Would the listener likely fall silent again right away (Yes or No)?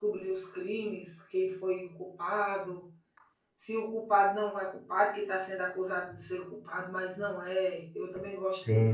No